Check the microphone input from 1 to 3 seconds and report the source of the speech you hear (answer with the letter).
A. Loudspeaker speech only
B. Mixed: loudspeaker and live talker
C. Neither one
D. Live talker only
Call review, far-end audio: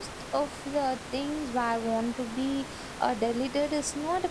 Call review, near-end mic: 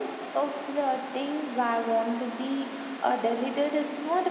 A